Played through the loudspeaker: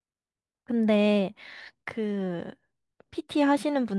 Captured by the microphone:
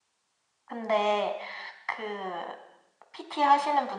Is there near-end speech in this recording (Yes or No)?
No